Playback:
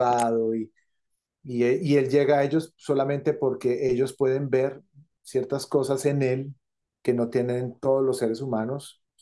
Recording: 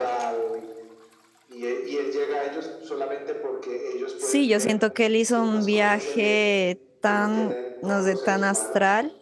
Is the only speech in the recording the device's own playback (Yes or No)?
No